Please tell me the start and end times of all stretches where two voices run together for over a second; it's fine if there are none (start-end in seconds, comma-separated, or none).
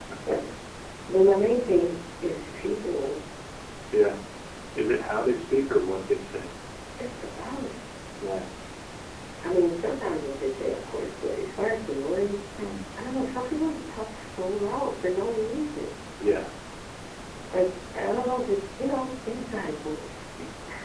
none